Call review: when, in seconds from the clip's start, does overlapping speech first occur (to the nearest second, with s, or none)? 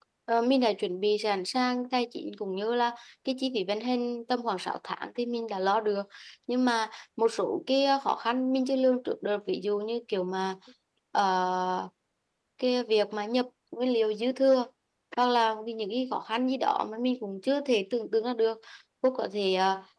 none